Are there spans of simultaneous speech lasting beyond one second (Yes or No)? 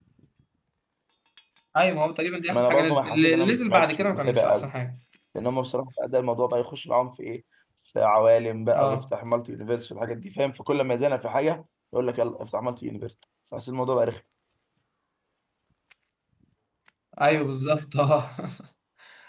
Yes